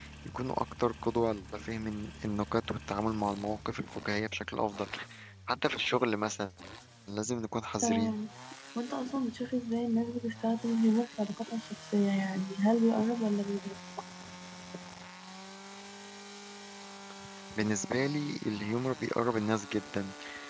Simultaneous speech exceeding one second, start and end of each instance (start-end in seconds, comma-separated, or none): none